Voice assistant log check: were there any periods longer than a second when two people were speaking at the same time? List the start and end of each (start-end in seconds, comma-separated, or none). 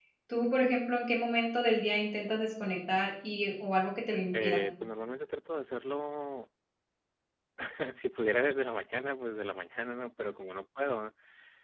none